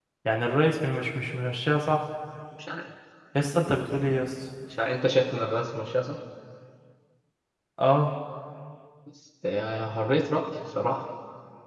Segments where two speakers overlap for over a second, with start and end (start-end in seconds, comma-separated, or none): none